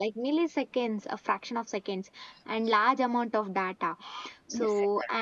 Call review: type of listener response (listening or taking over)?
listening